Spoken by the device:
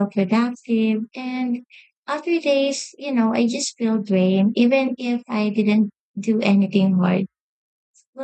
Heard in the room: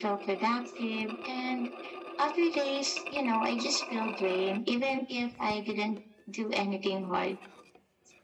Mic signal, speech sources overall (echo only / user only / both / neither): echo only